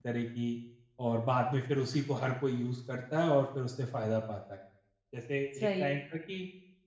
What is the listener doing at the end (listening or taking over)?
listening